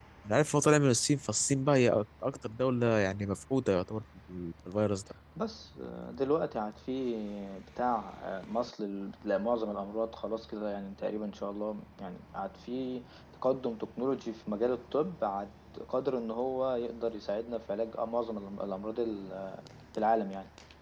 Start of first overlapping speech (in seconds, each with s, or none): none